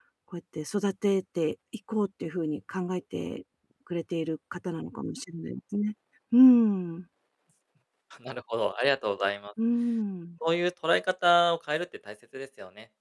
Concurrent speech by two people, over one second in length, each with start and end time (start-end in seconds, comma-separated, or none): none